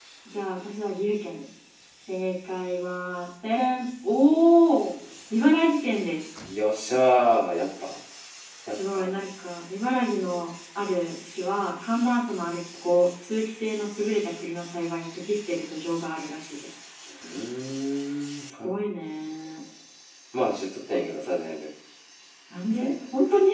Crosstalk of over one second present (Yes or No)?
No